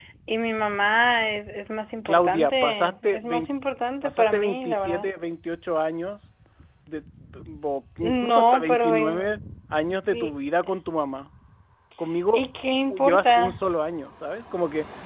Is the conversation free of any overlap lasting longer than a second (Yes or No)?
No